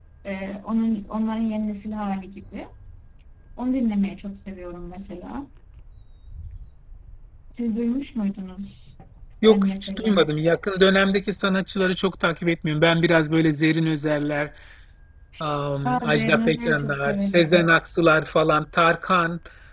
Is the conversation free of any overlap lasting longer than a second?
No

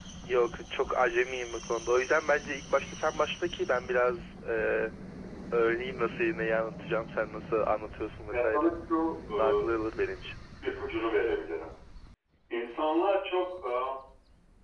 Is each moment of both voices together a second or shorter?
Yes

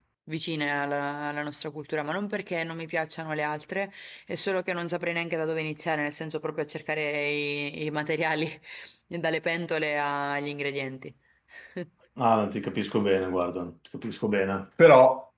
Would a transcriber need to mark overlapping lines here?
No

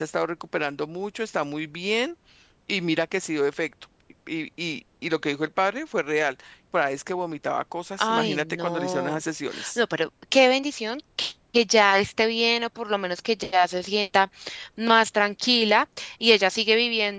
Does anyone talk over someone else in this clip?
Yes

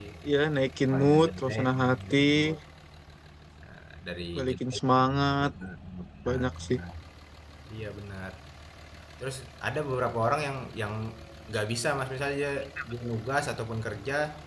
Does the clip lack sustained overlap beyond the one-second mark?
No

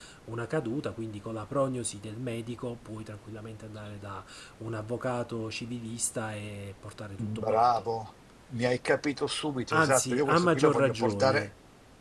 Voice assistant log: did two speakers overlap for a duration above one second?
Yes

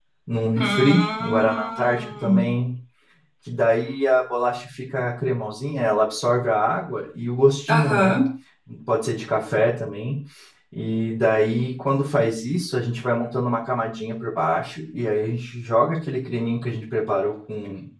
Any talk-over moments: Yes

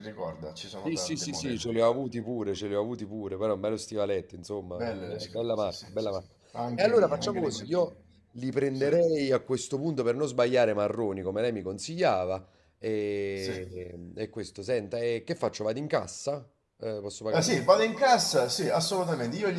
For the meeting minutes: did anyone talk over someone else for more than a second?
Yes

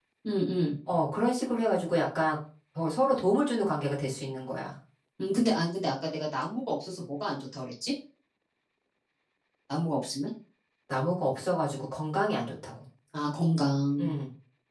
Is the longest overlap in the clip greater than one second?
No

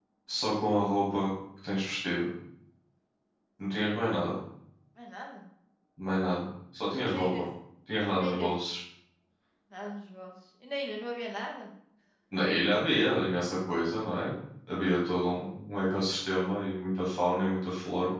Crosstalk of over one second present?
No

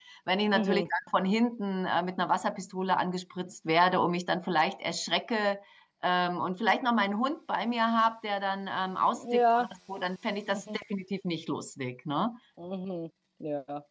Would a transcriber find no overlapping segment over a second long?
Yes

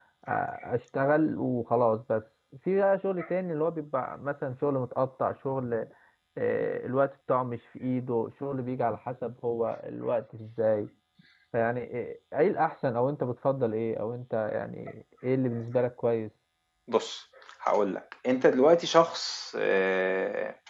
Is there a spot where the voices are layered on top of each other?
No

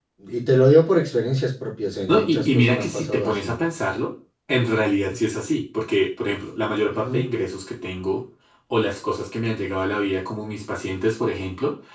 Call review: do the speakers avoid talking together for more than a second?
No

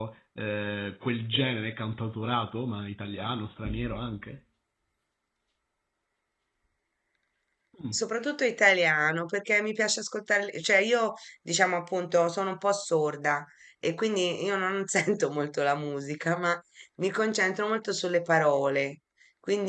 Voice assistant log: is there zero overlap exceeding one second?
Yes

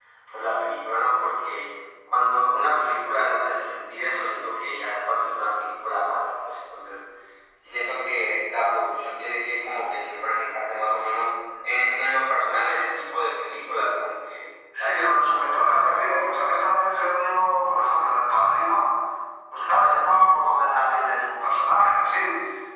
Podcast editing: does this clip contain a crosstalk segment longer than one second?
Yes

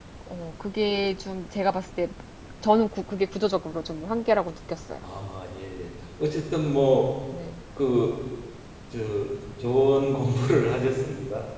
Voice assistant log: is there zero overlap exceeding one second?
Yes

